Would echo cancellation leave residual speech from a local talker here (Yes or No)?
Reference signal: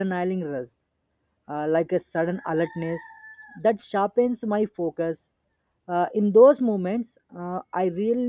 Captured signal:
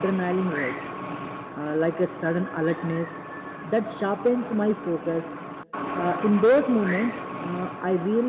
No